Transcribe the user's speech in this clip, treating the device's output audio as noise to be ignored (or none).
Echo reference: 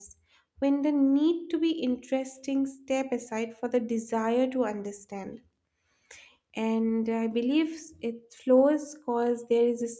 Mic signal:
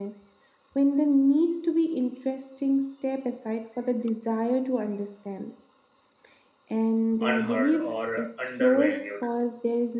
unheard or undervalued.